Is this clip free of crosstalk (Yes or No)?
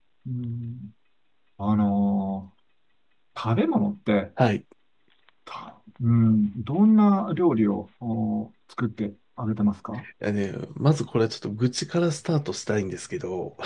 Yes